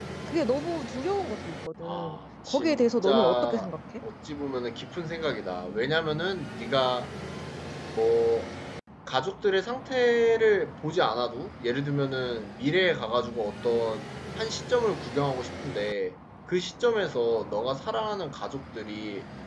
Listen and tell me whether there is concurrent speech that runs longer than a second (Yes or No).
Yes